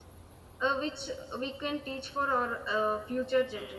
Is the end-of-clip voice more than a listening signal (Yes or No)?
Yes